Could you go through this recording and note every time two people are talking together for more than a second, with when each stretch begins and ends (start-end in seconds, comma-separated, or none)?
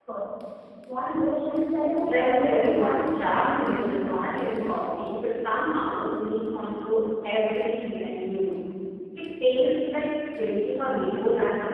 2.0-3.9